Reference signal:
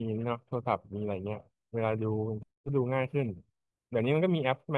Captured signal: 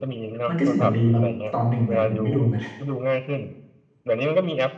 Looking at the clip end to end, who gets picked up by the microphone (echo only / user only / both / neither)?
both